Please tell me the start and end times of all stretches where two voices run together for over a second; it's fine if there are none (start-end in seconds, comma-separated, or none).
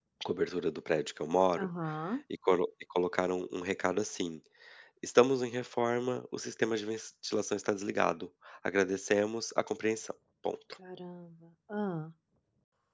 none